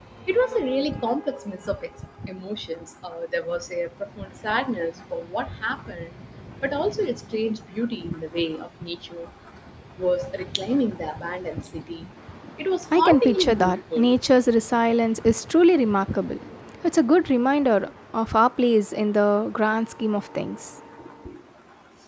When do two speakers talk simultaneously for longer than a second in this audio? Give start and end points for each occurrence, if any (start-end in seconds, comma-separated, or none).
12.9-14.1